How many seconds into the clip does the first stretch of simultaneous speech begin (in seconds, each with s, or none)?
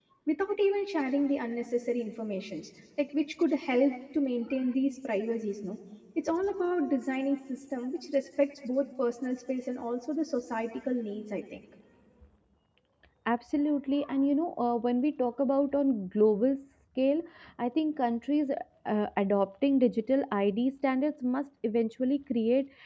none